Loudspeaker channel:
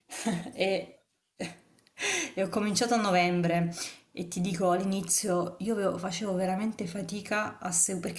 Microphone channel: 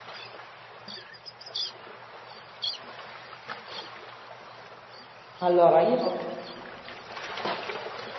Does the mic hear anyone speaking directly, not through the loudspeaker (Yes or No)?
Yes